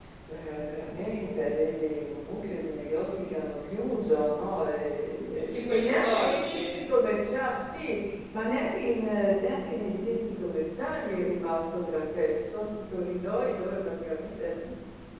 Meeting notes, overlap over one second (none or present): present